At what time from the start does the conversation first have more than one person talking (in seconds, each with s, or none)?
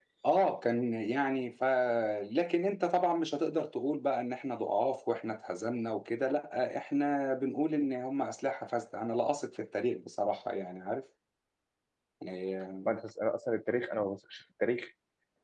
none